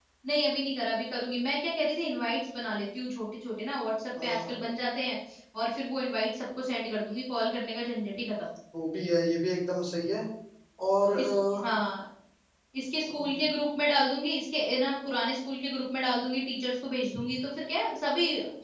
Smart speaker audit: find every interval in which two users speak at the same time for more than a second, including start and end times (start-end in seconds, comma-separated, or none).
none